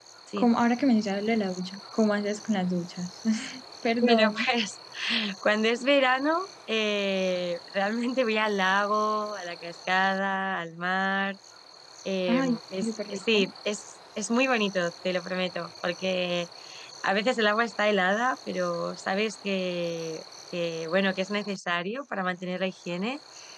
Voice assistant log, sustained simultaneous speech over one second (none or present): present